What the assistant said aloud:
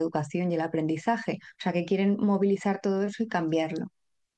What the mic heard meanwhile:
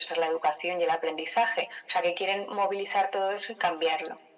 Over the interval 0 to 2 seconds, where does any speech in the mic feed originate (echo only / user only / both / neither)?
echo only